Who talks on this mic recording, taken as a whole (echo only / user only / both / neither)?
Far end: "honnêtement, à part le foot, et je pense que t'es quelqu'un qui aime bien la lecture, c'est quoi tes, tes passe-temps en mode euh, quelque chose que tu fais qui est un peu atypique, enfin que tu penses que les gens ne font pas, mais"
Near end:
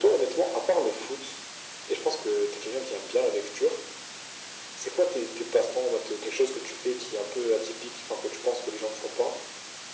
echo only